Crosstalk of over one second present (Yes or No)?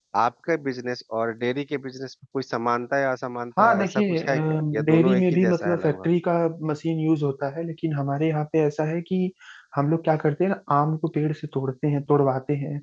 Yes